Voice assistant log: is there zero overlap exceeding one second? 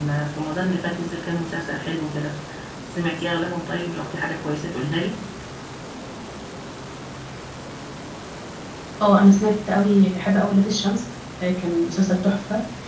Yes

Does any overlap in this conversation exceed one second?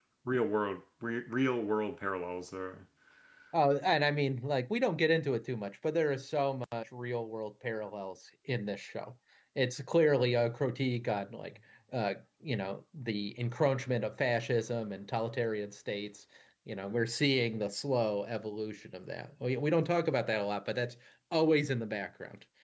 No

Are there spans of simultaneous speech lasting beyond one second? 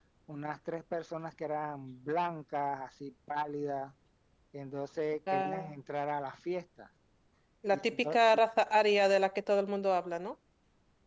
No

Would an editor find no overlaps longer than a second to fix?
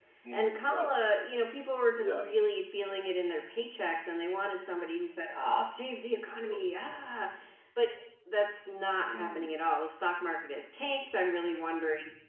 Yes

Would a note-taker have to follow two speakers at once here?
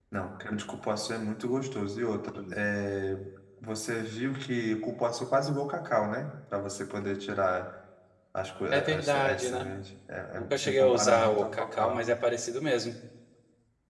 Yes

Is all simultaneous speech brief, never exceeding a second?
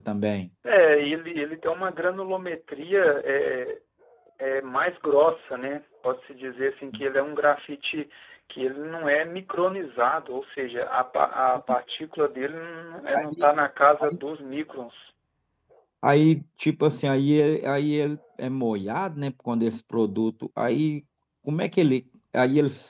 Yes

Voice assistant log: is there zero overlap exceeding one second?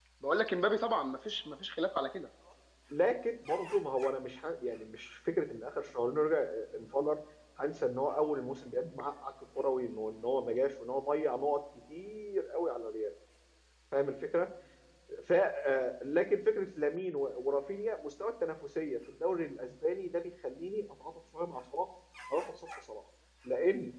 Yes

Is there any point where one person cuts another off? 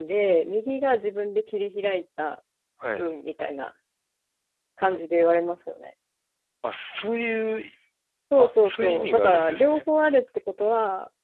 Yes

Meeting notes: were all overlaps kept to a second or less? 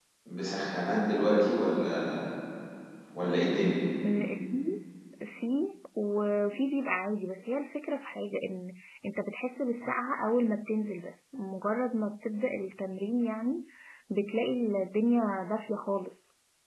Yes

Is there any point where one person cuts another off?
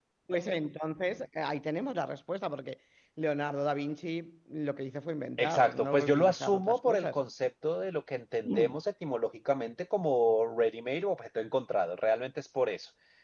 Yes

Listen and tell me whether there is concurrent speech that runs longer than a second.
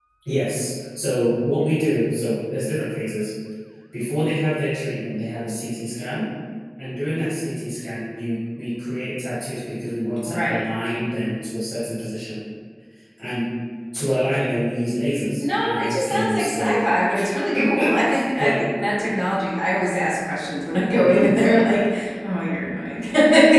Yes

